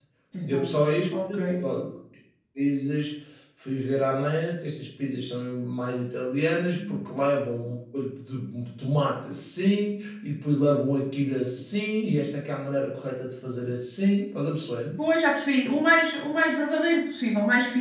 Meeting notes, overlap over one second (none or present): none